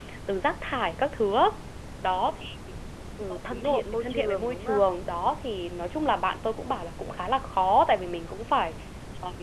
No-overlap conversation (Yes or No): No